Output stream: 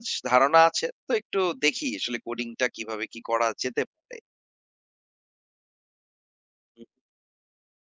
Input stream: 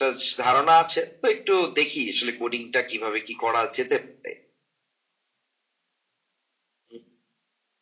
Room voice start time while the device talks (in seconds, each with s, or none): none